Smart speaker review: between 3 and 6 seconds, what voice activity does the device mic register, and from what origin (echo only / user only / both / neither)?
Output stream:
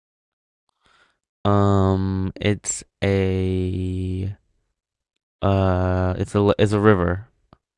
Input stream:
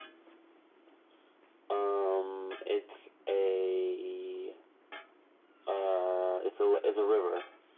echo only